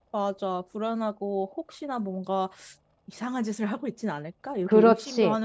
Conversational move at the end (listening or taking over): taking over